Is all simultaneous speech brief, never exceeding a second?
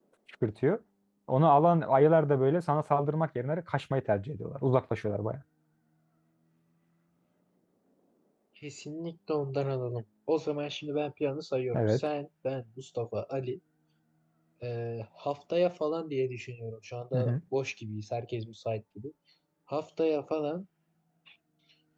Yes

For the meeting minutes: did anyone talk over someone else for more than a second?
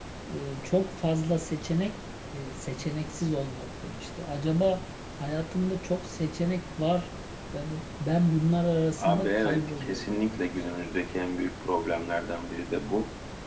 Yes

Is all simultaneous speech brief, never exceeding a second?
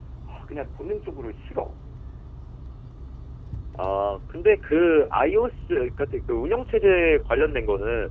Yes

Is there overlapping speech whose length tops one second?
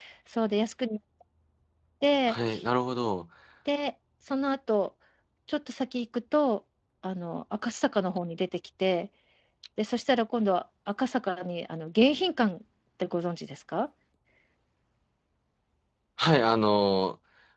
No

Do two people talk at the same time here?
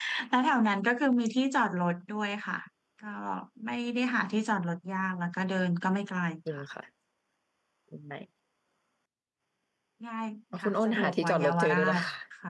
Yes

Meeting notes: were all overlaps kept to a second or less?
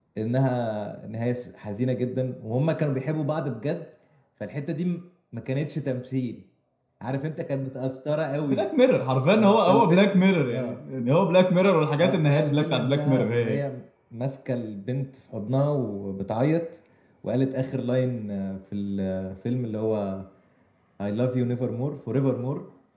No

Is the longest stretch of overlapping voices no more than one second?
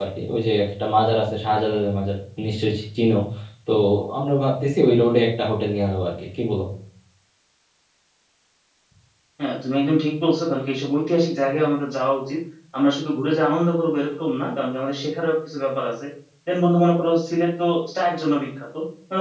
Yes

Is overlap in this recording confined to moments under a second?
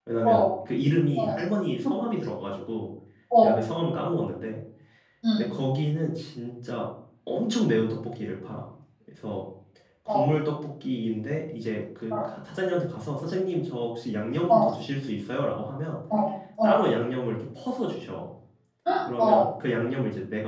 Yes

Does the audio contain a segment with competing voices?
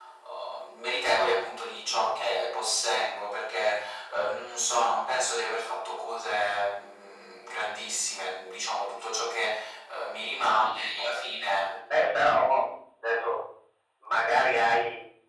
No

